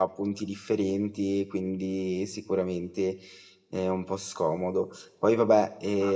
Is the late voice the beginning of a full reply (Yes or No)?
No